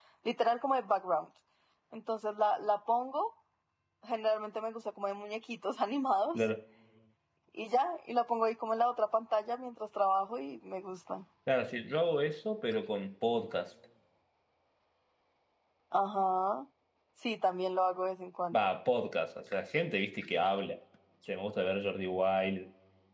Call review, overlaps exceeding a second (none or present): none